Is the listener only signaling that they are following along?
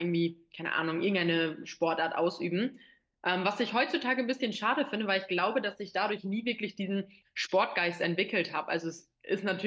Yes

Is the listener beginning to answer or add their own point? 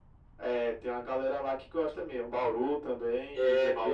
Yes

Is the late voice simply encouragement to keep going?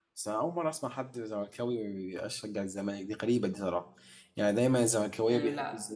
Yes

